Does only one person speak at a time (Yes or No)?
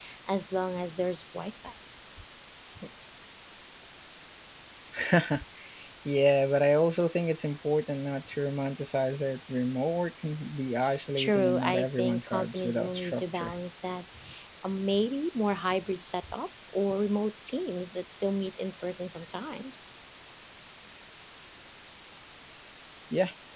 No